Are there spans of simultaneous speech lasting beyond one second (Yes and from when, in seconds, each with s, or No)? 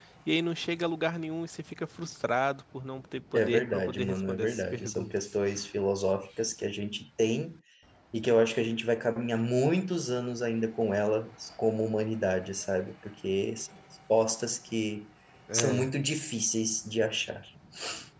Yes, from 3.3 s